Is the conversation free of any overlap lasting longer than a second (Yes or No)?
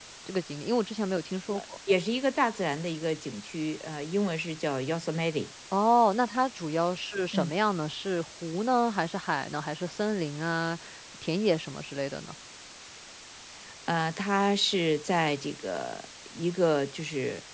Yes